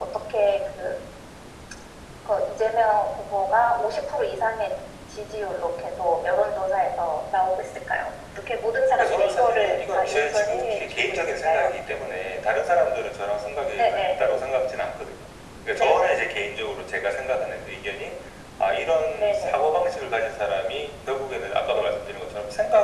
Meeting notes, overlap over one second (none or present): present